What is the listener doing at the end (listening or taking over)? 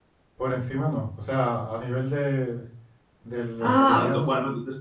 taking over